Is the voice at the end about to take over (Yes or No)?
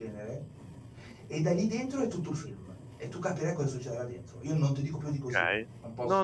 Yes